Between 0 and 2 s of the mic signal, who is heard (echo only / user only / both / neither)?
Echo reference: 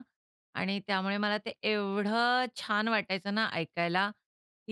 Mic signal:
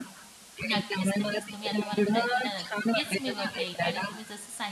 both